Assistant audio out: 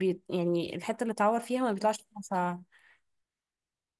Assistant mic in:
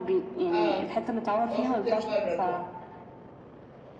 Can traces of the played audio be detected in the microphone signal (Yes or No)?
Yes